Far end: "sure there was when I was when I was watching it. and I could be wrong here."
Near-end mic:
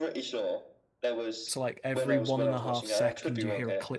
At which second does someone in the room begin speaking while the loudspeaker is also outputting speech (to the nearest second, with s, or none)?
1 s